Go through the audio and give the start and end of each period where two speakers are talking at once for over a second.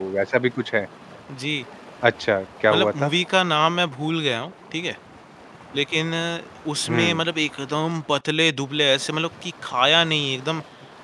none

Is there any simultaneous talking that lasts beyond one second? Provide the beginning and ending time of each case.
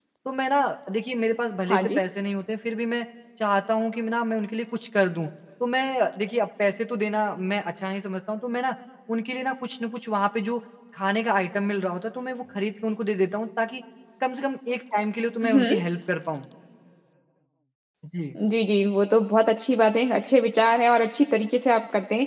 none

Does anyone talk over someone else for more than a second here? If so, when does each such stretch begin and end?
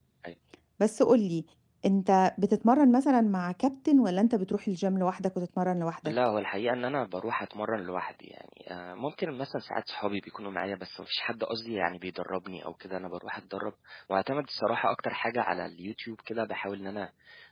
none

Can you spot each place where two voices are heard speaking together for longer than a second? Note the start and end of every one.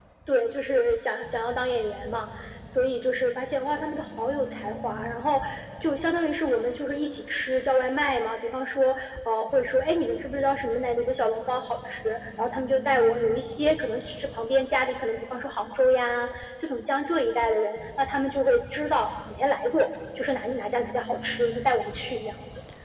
none

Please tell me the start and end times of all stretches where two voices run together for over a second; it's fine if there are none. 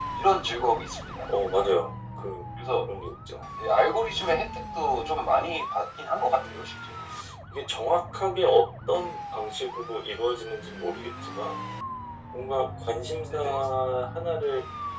none

